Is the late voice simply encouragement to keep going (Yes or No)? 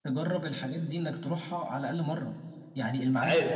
Yes